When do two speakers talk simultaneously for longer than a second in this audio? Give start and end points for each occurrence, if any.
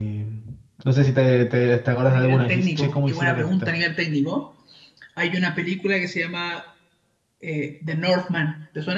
2.1-3.7

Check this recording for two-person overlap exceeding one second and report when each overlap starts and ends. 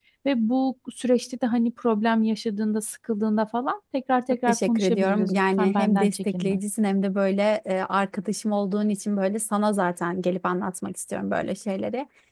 4.5-6.6

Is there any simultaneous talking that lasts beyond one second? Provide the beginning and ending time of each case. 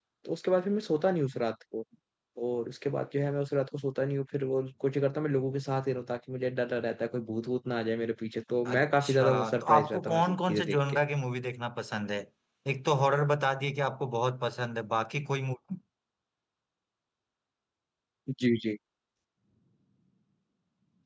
8.7-11.0

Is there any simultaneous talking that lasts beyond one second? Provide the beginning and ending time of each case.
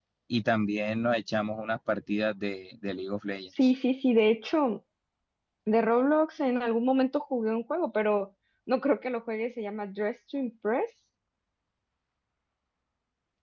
none

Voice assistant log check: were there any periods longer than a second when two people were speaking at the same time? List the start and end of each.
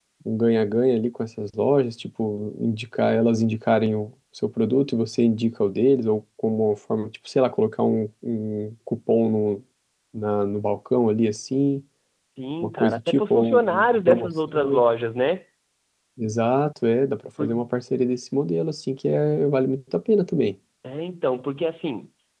12.6-14.8

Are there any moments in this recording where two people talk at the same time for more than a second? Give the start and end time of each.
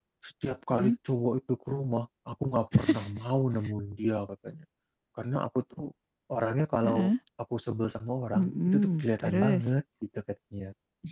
8.3-9.6

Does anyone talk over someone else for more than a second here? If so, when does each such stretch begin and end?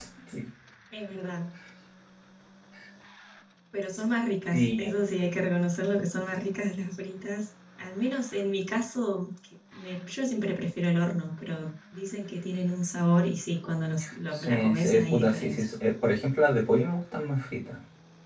14.3-15.6

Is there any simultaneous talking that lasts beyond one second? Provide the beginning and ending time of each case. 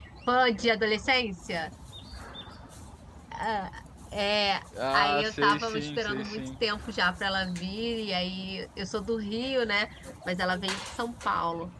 5.0-6.5

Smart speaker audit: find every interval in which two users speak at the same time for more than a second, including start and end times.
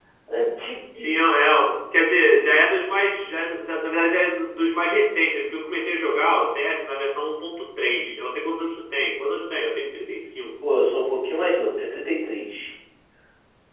none

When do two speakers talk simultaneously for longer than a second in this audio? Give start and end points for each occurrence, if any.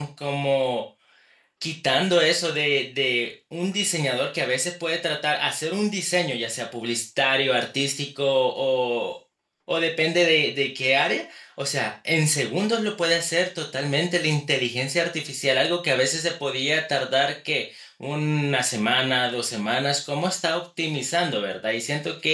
none

